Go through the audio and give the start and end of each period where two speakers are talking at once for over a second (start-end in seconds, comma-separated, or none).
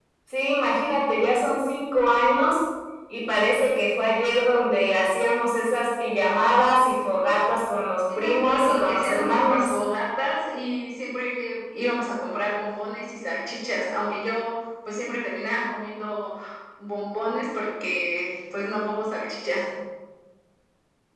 8.2-9.7